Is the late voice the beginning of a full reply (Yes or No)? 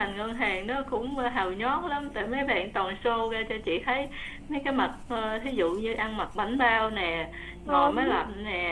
No